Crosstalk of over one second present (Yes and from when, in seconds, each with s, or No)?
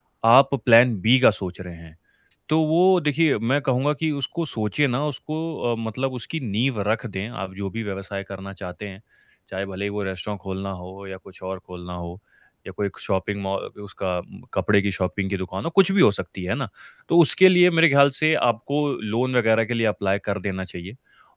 No